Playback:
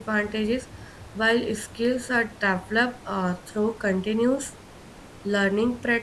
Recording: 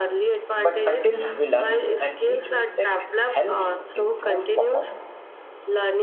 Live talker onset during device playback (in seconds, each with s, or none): 0.6 s